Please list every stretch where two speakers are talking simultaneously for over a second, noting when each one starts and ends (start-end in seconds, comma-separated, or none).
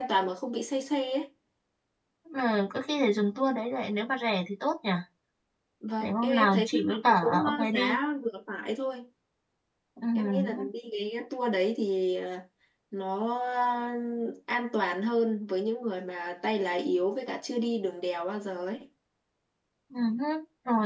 6.0-7.9